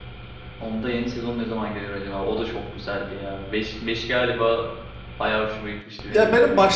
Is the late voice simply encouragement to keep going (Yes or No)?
No